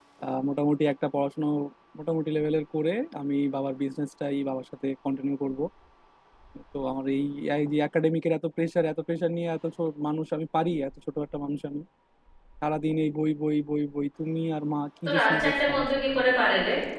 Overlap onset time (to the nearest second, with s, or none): 15 s